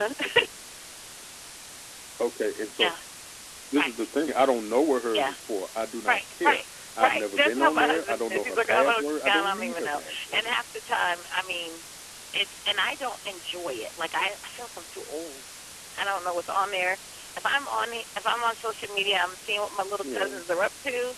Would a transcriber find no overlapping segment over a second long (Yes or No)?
No